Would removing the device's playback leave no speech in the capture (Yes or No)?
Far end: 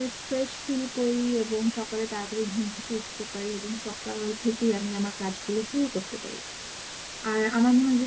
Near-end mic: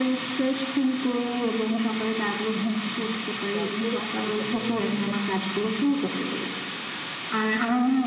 No